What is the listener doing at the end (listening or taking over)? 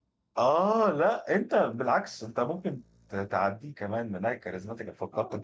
taking over